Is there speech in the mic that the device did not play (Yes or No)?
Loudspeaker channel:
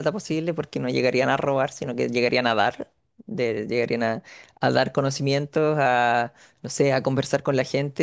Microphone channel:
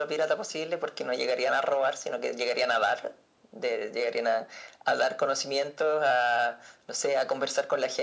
No